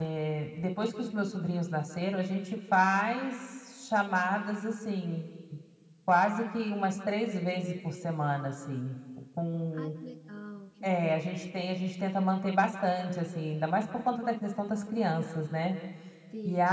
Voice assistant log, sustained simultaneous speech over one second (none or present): none